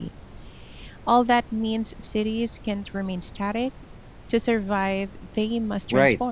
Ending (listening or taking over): taking over